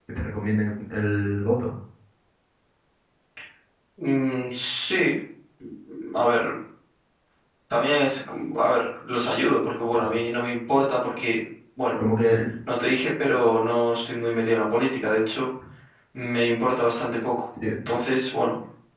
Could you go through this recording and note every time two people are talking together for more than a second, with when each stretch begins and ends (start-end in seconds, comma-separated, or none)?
none